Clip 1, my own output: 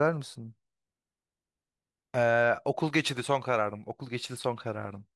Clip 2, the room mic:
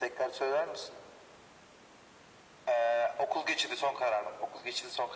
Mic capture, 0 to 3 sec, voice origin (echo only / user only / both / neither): echo only